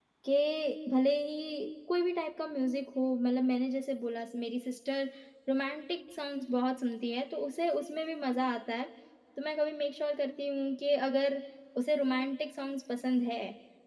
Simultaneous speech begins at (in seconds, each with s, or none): none